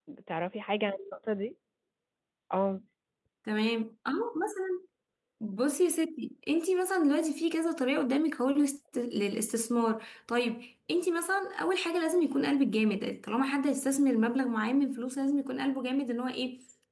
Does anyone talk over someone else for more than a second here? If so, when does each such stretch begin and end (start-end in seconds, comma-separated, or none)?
none